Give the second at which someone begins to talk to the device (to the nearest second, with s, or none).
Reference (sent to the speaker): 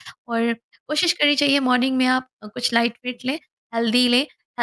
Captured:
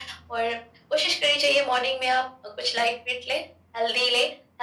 none